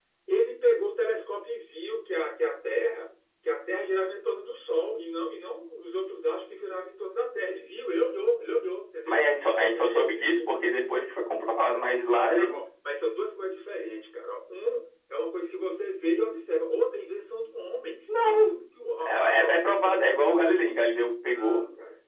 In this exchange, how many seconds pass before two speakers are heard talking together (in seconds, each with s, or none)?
9.1 s